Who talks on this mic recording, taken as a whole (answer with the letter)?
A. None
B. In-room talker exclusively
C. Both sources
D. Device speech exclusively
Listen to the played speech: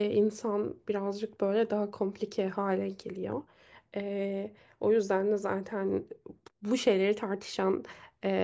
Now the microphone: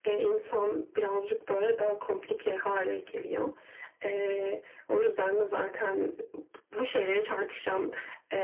D